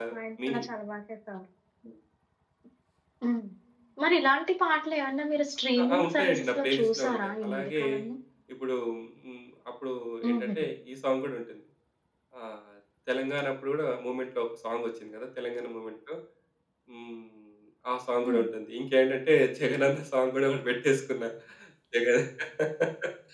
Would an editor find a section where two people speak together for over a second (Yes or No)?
Yes